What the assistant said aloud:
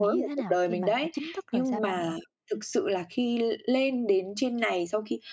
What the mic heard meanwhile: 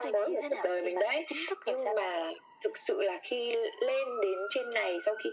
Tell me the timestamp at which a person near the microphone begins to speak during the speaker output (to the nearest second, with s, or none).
none